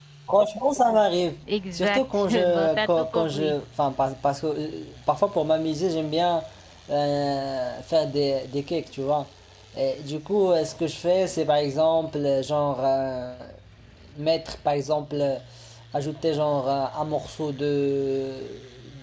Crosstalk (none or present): present